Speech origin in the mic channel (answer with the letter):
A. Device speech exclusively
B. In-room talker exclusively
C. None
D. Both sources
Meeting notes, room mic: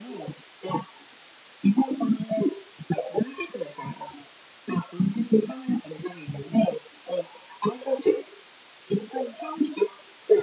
A